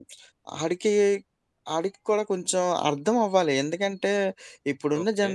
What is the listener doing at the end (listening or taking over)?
listening